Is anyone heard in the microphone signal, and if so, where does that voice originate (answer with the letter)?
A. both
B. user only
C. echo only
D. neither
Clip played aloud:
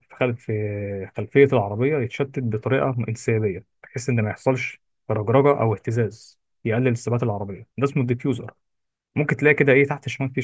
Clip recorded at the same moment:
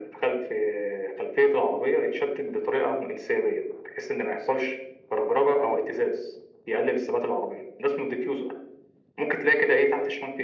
C